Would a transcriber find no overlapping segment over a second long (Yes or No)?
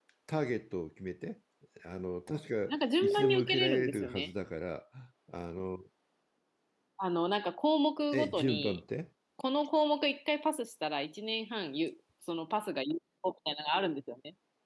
No